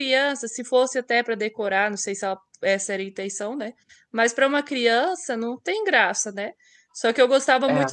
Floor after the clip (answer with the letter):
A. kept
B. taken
A